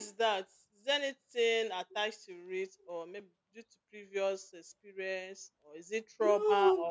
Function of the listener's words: taking over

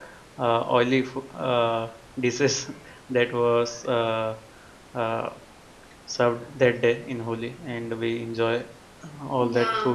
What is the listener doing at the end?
taking over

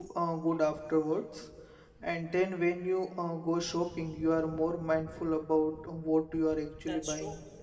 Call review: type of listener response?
taking over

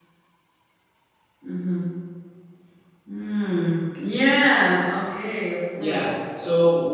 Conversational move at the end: taking over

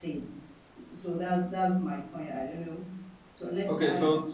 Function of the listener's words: taking over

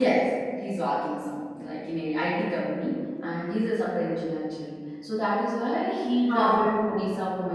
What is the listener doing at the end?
listening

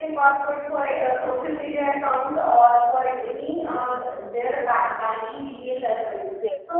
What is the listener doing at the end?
listening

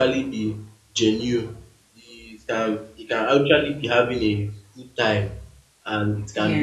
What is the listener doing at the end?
listening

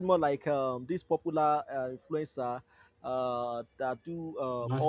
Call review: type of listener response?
listening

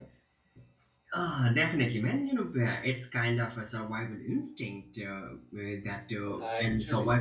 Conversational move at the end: listening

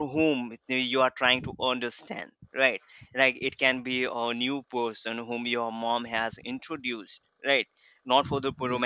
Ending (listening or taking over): listening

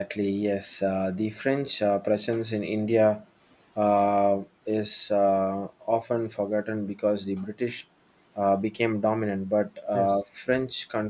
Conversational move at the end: listening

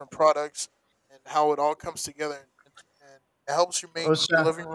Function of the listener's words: listening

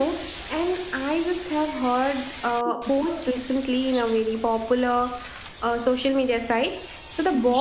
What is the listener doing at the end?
listening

